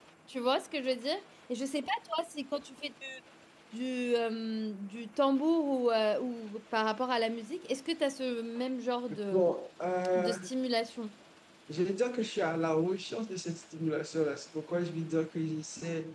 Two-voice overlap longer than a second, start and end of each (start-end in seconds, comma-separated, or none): none